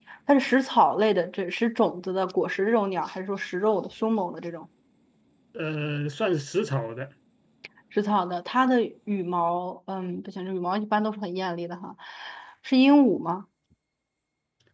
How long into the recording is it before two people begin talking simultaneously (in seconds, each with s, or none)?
none